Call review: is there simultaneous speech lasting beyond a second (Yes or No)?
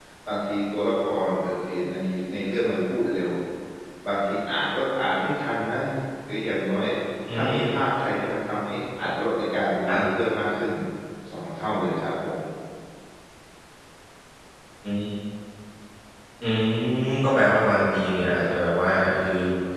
No